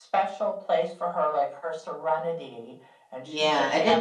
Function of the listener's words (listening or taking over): taking over